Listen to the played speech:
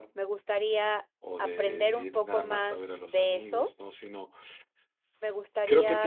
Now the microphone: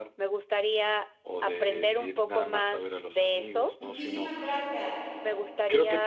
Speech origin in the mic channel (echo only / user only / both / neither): both